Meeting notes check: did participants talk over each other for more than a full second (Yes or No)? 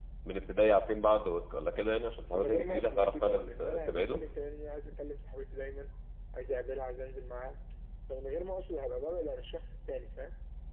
Yes